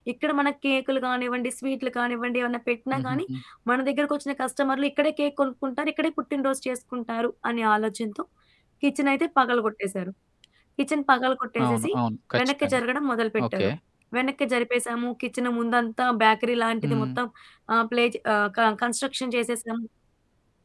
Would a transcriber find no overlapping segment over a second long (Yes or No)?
Yes